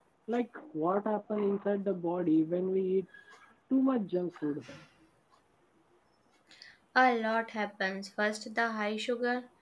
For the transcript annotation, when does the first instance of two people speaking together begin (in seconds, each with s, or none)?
none